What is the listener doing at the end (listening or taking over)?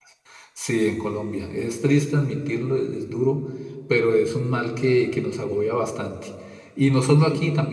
listening